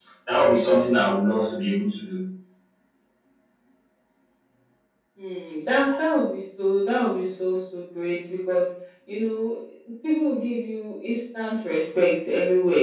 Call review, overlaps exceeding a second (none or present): none